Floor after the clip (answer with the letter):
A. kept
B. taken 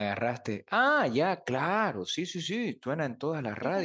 B